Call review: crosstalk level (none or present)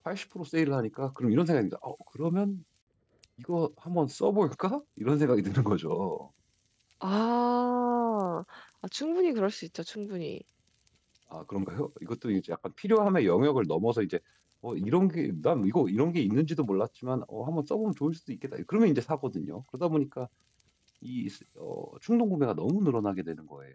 none